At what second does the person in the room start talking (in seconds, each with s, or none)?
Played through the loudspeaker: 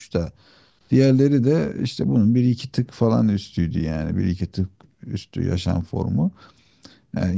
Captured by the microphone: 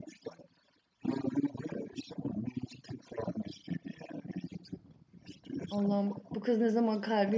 5.7 s